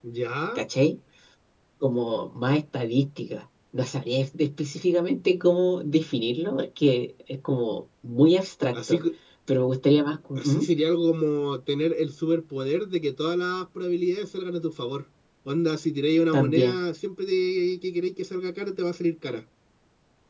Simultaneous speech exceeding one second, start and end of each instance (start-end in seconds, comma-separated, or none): none